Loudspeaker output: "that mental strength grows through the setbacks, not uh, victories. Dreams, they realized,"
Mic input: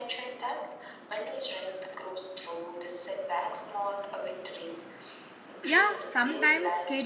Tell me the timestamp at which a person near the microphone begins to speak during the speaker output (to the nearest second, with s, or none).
6 s